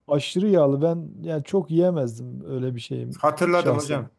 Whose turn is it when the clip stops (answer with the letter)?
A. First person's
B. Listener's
B